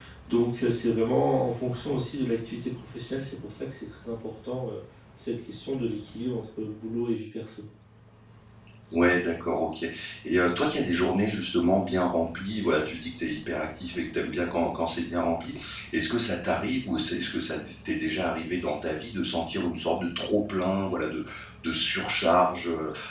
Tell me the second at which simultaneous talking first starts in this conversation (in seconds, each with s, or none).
none